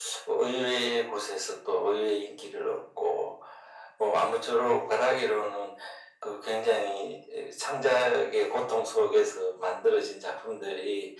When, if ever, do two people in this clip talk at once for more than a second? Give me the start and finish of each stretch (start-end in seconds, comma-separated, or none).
none